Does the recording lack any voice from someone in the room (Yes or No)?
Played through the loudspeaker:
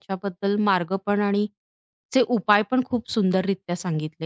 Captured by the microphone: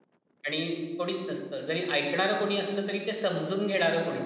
No